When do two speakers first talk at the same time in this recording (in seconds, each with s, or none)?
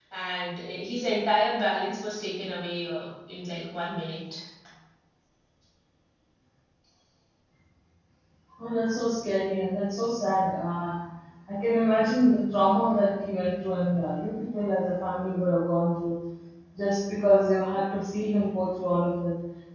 none